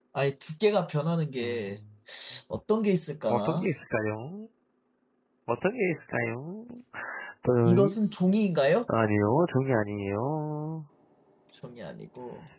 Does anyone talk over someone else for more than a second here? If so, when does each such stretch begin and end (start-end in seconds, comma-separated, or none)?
none